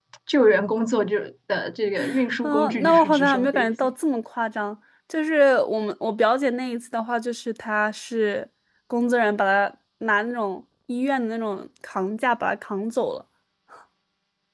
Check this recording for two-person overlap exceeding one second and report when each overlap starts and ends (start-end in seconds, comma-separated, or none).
2.4-3.9